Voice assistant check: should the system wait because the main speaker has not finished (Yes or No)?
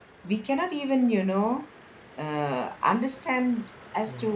Yes